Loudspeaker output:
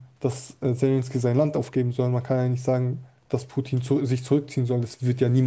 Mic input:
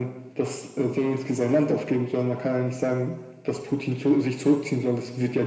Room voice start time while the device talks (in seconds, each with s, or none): none